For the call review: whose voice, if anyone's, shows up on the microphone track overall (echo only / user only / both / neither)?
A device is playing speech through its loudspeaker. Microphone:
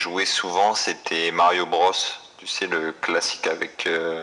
echo only